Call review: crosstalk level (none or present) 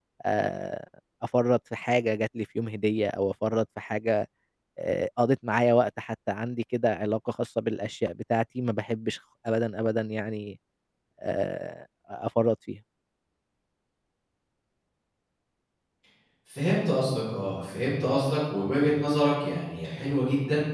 none